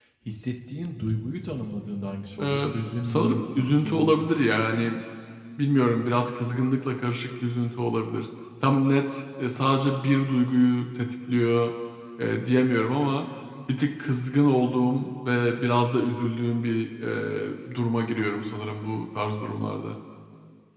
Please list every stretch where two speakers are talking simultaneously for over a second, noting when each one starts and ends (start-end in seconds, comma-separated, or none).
3.0-4.2